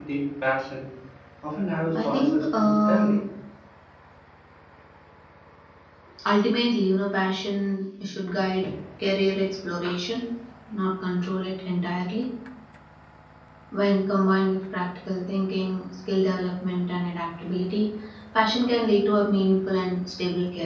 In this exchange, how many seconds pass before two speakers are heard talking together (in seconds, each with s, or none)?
1.9 s